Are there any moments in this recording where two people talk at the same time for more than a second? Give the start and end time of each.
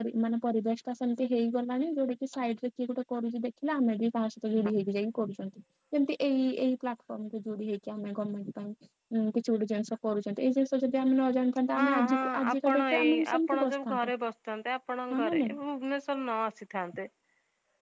11.8-14.1

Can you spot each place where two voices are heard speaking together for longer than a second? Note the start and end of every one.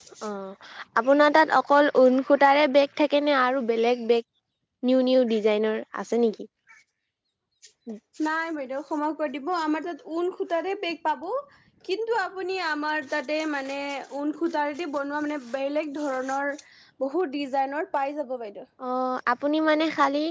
none

